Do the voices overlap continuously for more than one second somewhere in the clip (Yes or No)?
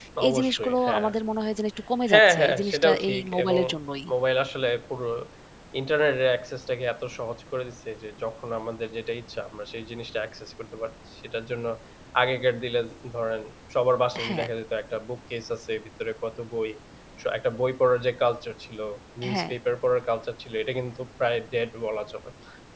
Yes